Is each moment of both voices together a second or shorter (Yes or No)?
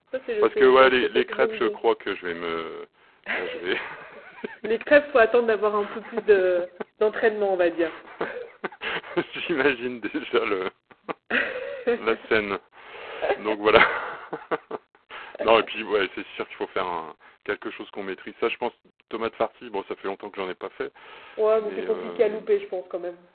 No